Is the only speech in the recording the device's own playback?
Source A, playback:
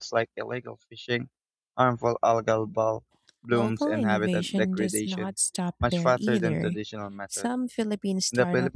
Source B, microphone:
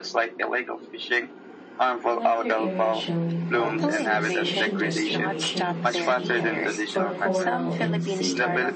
No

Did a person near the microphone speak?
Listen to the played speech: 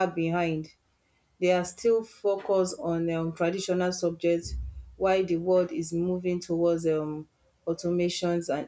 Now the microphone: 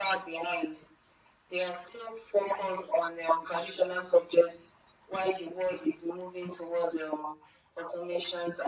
No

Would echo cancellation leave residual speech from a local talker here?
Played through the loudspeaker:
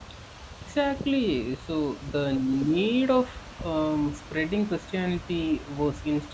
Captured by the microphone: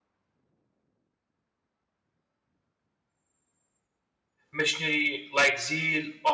Yes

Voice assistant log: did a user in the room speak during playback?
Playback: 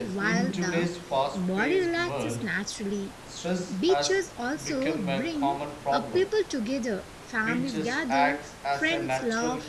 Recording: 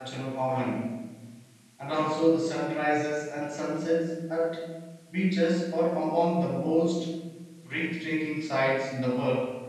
Yes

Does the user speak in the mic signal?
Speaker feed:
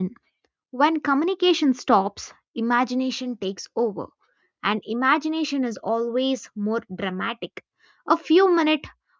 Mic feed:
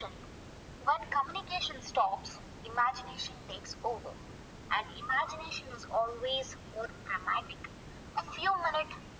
No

